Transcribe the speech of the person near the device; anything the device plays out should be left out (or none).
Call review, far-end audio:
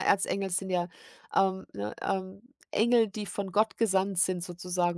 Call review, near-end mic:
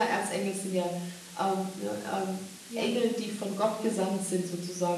ja, ne? Ja.